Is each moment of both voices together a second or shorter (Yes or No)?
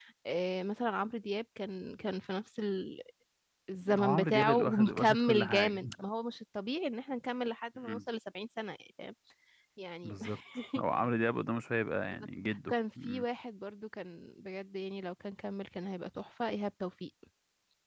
No